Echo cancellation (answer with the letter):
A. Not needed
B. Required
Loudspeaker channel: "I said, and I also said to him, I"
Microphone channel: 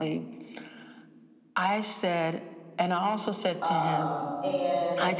B